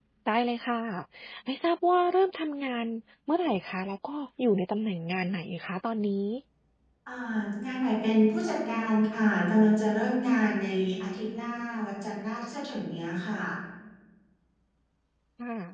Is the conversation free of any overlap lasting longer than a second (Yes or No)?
Yes